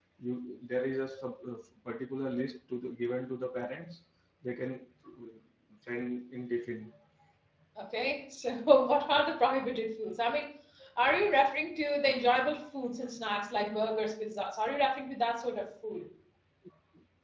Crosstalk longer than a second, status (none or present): none